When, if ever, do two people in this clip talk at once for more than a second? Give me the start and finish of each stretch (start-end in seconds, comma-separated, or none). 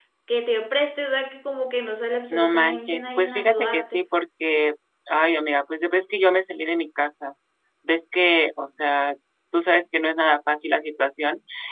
2.3-4.0